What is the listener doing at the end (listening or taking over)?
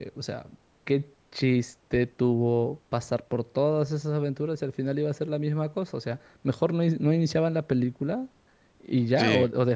listening